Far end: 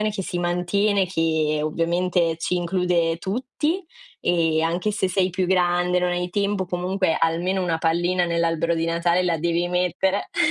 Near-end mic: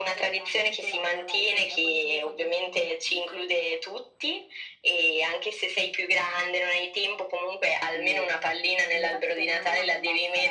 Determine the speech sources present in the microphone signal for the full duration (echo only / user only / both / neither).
both